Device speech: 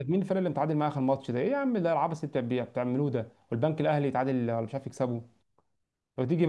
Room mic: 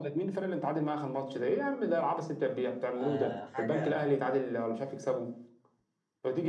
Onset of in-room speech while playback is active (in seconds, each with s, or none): 3.0 s